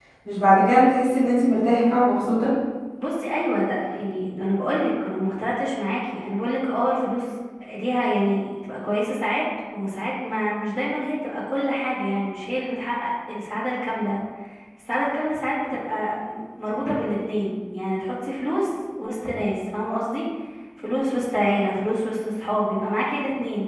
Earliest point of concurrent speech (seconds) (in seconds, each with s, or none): none